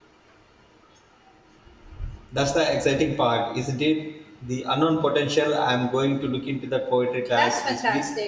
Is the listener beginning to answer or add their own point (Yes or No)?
Yes